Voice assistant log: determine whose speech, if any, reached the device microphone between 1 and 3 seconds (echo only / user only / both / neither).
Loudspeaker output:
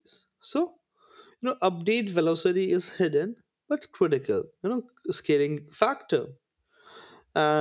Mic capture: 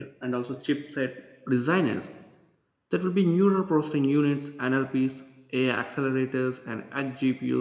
user only